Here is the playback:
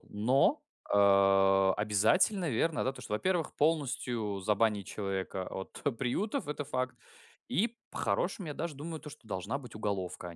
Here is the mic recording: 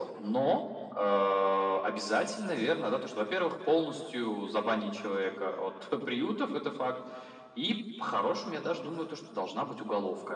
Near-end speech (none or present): none